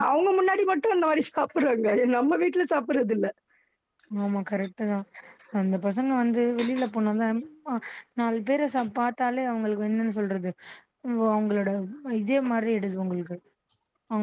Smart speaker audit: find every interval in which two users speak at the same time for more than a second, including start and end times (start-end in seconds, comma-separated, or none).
none